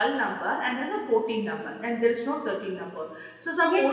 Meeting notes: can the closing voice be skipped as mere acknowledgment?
No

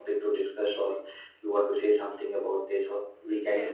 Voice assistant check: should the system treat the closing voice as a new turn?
Yes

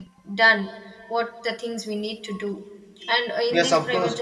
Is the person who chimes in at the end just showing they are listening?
No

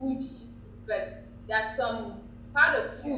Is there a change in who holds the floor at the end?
No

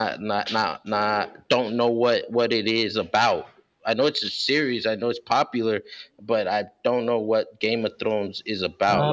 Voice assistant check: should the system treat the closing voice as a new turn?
Yes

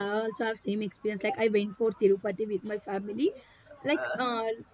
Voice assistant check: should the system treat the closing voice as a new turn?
No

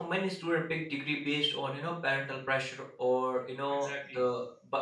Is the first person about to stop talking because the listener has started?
No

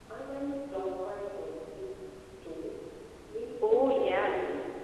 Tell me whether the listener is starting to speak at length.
Yes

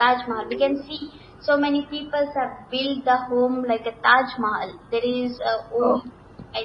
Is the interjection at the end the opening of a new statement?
No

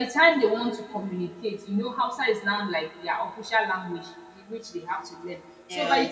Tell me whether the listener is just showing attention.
Yes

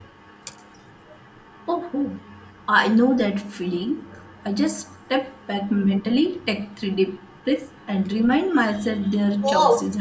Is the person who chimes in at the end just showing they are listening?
No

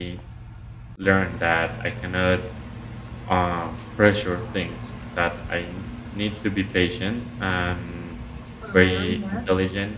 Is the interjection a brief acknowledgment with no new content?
Yes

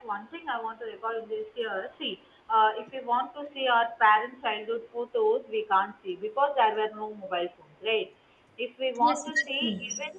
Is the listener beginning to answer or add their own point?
No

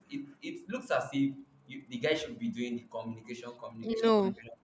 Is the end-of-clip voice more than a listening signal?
Yes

